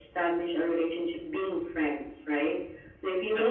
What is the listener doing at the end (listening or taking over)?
listening